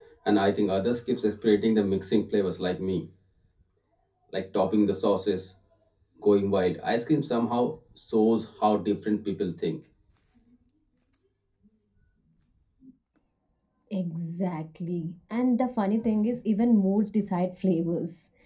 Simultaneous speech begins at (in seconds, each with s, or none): none